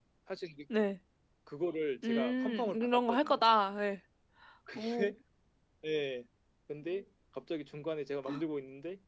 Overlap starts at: 2.0 s

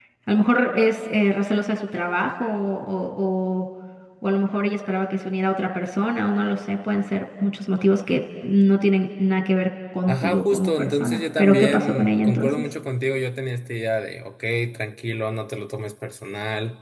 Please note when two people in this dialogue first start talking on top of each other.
10.1 s

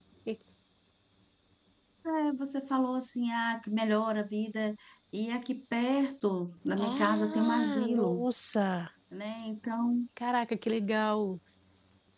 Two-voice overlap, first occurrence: 6.8 s

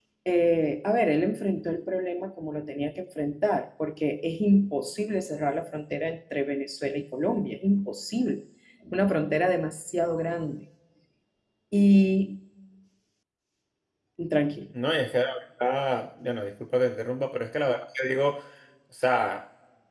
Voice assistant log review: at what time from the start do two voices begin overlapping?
none

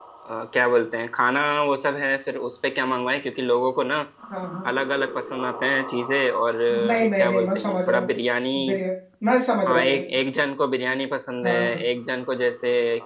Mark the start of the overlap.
6.7 s

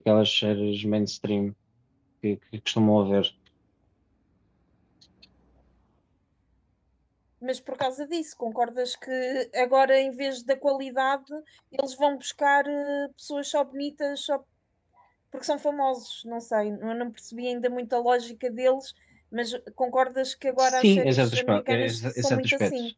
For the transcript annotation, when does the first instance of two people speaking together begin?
20.6 s

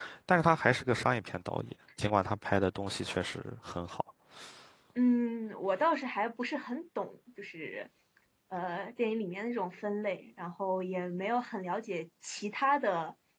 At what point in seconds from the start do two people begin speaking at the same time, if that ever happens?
none

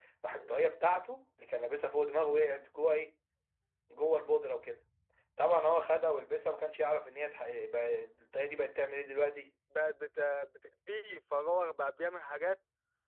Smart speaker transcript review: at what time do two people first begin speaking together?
none

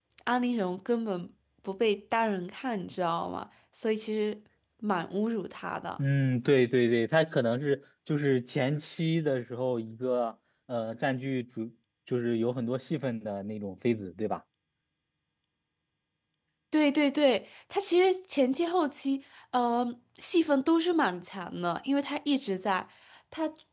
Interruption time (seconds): none

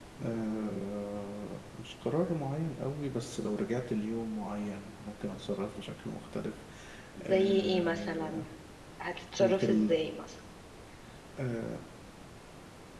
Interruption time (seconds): 7.2 s

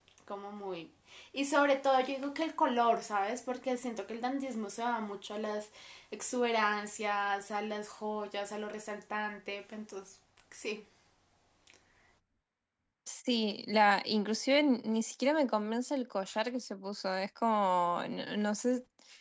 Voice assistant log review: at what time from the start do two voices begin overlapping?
none

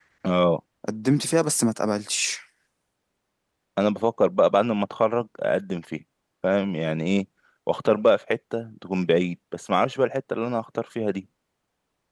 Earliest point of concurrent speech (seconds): none

